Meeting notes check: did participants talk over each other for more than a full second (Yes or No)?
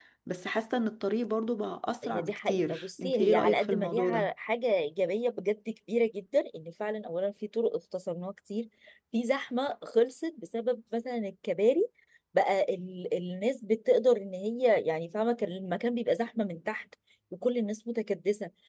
Yes